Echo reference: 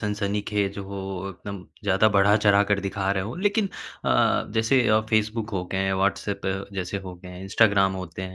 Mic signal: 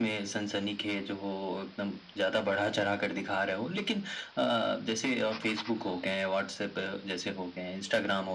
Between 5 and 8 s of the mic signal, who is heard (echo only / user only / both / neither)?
echo only